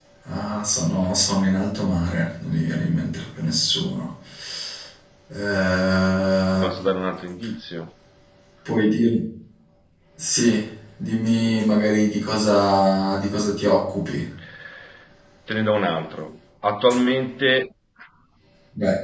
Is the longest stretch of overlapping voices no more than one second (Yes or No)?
Yes